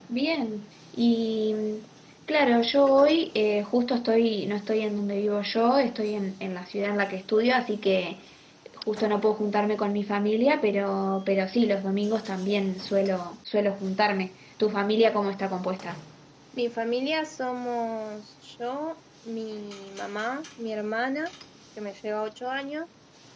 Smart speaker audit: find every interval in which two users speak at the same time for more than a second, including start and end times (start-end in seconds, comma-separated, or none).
none